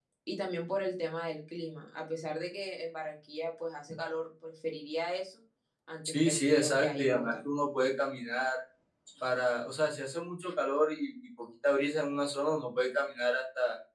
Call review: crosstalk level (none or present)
present